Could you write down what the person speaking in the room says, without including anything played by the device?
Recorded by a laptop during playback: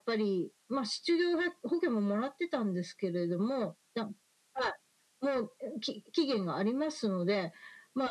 none

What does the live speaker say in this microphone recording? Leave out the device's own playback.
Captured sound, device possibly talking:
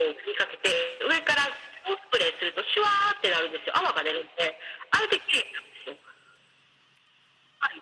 none

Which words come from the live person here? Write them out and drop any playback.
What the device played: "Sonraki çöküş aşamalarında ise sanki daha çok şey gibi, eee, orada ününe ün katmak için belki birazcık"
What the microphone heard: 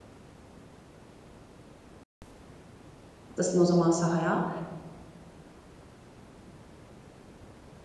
atlasın o zaman sahaya.

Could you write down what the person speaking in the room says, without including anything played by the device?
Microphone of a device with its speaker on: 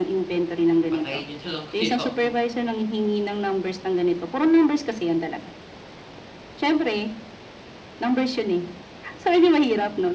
patayin niyo nalang kaya ako.

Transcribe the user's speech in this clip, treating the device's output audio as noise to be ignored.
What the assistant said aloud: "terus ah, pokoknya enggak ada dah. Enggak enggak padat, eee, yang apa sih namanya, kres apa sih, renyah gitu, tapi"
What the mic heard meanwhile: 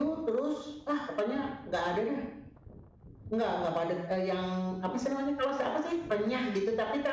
none

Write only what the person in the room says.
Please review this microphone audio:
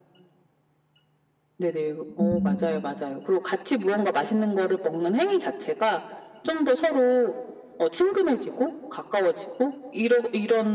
음.

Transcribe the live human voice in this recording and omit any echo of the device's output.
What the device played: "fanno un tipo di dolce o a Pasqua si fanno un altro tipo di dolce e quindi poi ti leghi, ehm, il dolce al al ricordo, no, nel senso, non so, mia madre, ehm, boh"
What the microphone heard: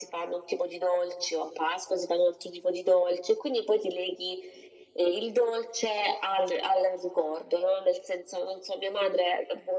none

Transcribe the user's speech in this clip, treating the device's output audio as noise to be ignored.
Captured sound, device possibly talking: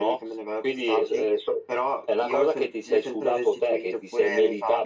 none

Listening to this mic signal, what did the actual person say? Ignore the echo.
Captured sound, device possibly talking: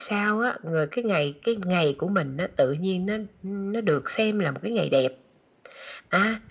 none

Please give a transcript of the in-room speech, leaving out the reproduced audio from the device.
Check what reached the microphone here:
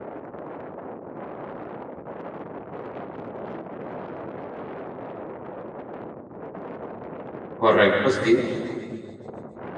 Correcto, sí.

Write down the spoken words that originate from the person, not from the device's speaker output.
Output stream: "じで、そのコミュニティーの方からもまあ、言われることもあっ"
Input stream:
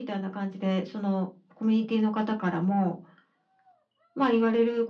none

